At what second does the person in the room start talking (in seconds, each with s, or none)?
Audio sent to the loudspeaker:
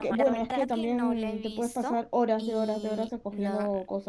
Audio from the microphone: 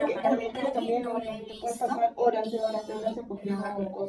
none